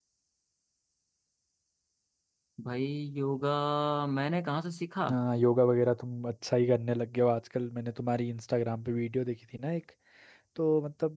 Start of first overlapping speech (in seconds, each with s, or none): none